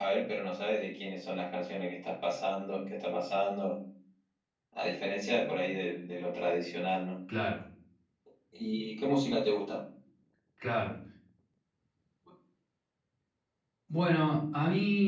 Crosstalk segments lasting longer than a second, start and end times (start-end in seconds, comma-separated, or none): none